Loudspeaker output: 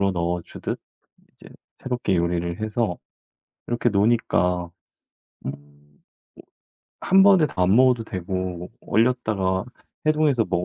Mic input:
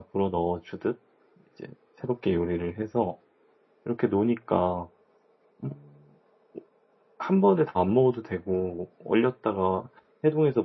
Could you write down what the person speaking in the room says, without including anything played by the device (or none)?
none